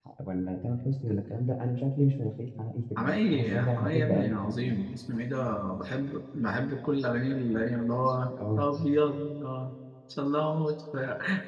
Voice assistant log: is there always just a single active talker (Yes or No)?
No